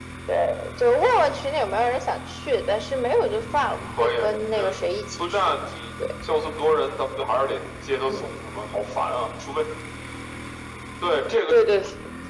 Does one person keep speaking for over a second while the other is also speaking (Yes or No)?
Yes